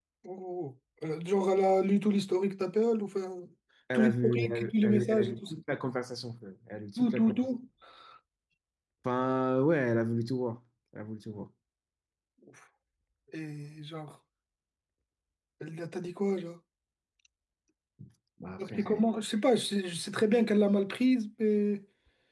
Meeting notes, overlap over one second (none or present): present